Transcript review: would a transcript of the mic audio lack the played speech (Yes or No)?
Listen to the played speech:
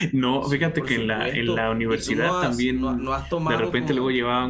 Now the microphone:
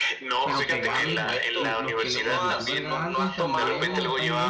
No